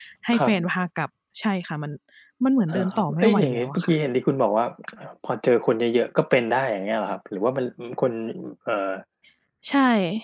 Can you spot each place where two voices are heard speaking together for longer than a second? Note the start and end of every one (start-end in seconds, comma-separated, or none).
2.7-3.9